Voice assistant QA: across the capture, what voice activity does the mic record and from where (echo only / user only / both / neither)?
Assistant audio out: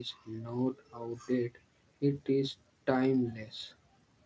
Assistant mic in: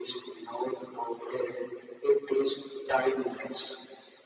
echo only